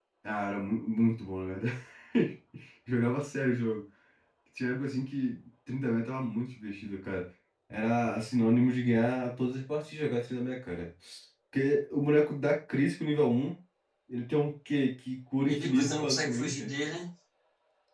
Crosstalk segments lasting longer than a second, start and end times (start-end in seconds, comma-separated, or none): 15.5-16.7